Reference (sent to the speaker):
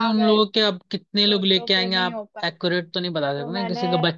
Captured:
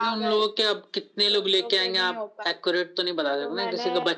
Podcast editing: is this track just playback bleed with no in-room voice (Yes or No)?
Yes